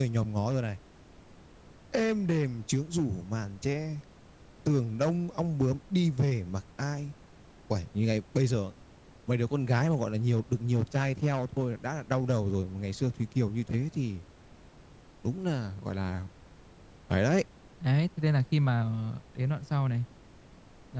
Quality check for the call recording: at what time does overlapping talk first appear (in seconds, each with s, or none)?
none